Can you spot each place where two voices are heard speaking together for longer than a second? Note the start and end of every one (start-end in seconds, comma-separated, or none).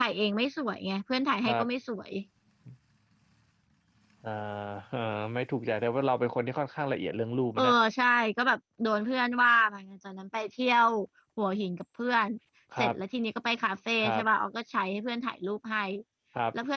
none